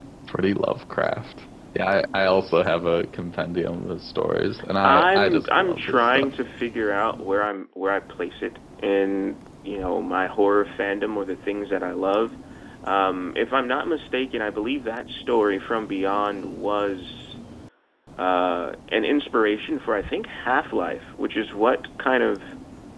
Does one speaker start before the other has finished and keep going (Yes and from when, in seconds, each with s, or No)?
Yes, from 4.8 s